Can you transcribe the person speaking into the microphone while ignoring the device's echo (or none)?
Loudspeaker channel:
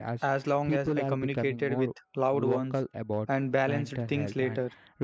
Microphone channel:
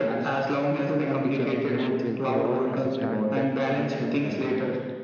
future generations will grow up understanding that